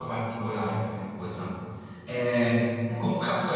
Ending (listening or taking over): listening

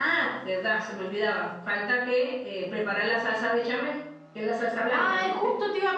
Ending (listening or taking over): taking over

